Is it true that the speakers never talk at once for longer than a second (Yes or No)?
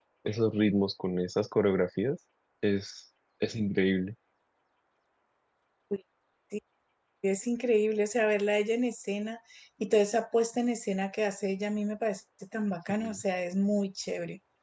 Yes